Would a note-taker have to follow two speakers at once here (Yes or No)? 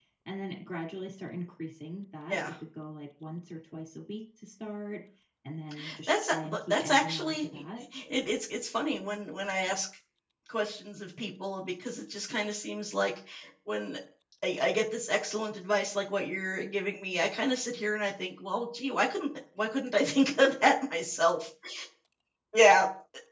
Yes